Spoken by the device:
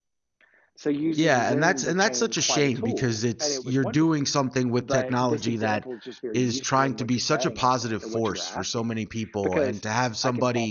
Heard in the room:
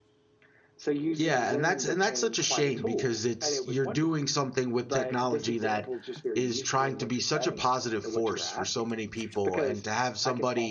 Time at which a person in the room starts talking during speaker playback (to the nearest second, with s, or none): none